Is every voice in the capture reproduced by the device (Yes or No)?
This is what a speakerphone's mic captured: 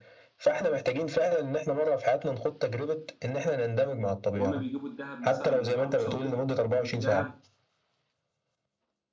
No